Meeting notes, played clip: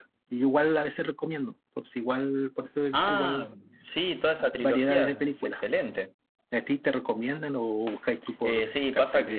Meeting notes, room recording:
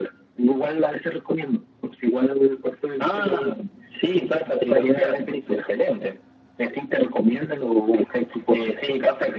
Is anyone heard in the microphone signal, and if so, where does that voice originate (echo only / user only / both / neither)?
echo only